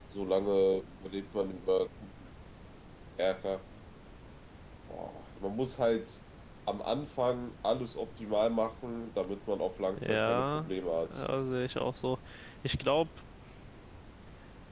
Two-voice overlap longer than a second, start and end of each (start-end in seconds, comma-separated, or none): 10.0-11.2